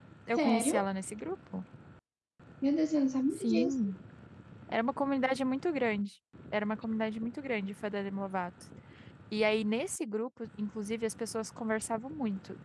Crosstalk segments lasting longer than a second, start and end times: none

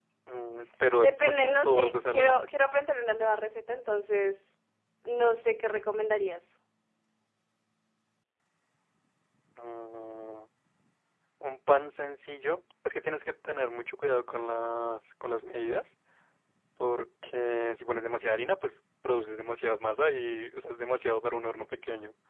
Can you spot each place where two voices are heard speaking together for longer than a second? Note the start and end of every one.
0.9-2.4

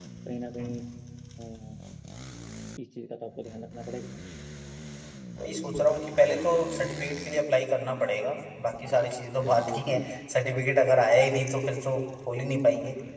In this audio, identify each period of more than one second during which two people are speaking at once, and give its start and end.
none

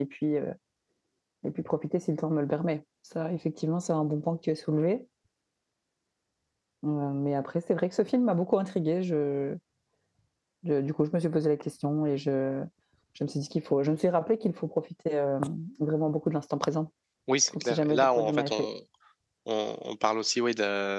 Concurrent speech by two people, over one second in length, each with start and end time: 17.5-18.7

